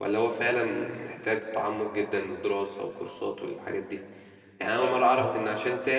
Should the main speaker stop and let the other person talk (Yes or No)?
No